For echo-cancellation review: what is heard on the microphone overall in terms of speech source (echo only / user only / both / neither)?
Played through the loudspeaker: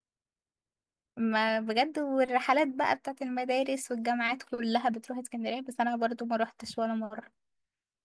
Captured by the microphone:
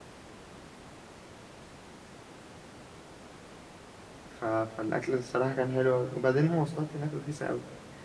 user only